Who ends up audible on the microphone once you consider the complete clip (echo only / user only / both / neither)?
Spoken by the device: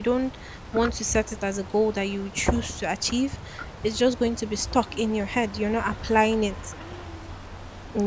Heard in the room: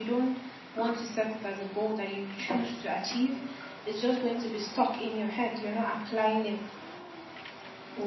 echo only